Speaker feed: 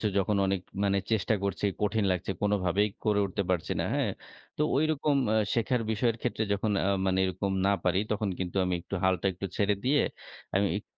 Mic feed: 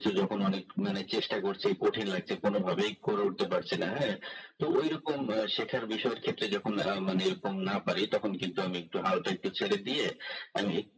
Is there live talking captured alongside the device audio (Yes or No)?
No